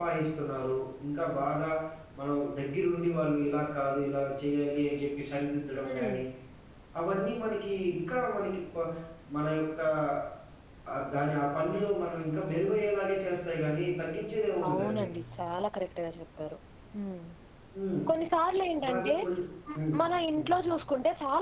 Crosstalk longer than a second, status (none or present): none